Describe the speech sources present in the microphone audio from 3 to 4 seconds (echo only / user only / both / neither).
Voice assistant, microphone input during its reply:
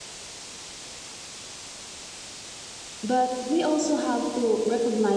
user only